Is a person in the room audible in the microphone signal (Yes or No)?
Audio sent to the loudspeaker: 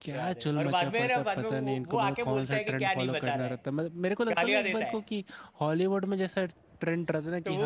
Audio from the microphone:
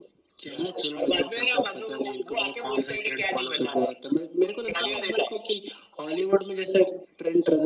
No